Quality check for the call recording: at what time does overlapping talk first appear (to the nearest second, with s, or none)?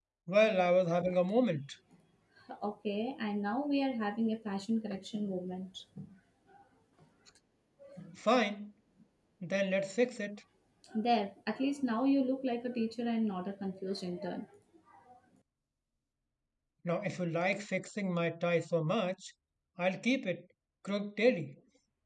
none